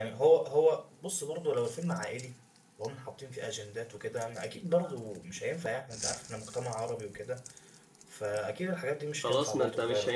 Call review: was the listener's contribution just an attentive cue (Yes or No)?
No